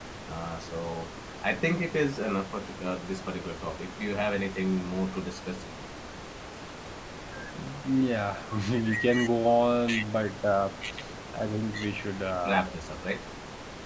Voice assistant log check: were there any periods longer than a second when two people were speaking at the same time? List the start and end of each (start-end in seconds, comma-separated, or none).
none